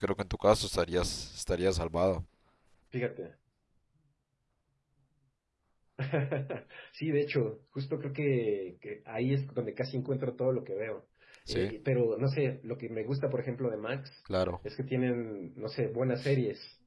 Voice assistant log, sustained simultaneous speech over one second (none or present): none